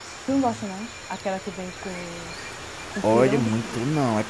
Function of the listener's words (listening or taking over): taking over